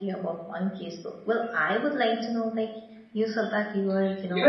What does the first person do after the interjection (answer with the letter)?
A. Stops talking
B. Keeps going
A